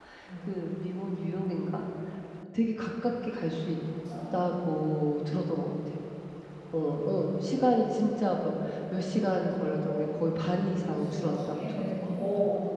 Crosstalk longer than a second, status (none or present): present